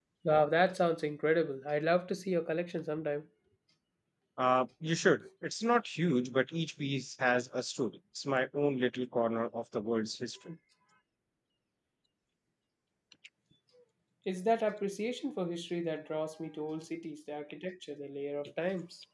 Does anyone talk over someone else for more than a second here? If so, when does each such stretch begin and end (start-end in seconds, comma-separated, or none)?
none